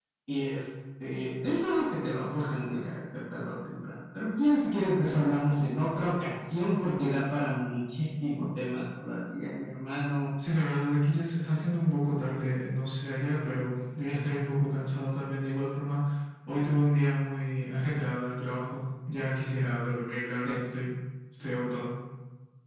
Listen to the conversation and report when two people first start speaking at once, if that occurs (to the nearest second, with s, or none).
none